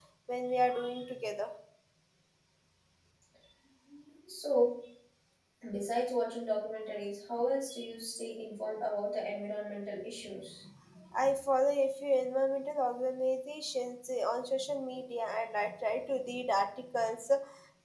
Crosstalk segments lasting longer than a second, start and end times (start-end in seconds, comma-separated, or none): none